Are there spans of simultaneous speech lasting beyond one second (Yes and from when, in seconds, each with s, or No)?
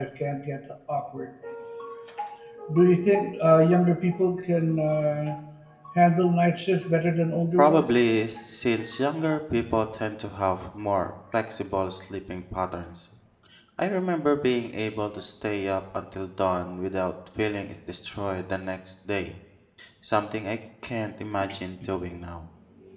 No